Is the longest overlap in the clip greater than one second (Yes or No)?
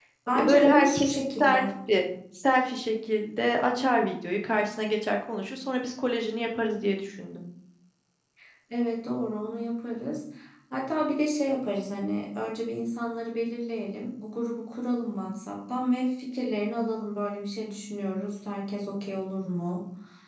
Yes